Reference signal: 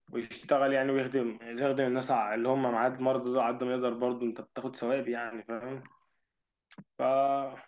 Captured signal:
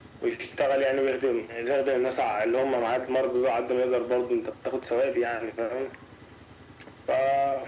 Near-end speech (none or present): none